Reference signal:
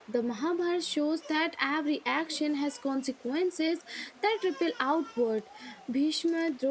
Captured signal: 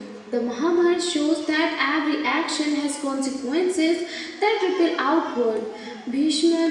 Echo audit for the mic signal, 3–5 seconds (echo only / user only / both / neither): echo only